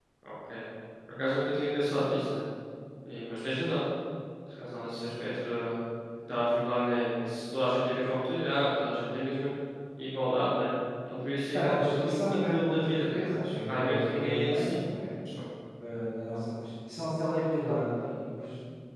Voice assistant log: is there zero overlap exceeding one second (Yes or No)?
No